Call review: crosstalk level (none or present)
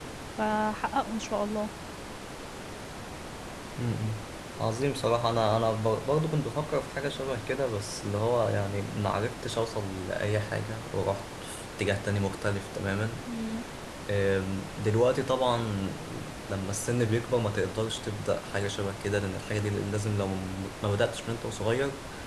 none